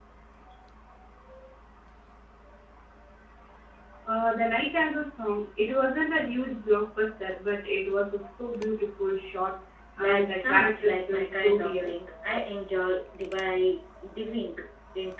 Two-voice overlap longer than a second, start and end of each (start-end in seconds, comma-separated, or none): 10.0-11.9